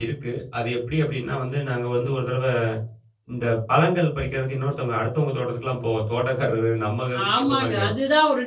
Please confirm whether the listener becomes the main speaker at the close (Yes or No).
Yes